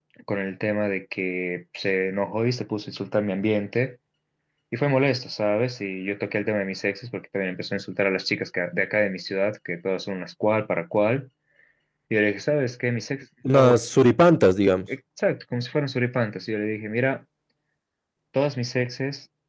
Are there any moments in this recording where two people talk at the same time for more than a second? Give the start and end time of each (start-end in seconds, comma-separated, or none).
none